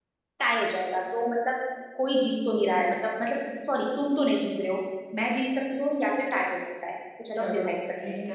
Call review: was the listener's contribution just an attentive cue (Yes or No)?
No